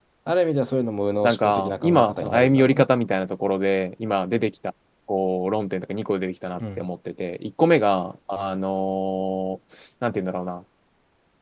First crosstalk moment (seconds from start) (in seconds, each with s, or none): 1.2 s